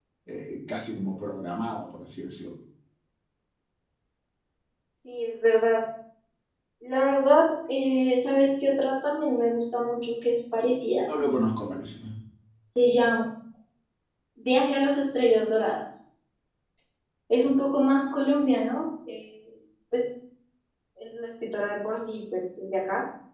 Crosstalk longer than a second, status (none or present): none